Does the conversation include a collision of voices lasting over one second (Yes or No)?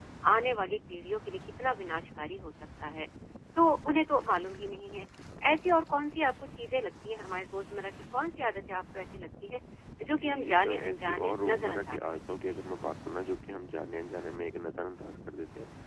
Yes